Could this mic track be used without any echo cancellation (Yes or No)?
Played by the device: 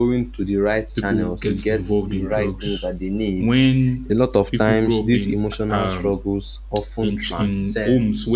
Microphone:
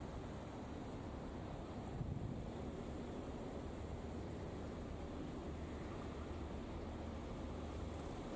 Yes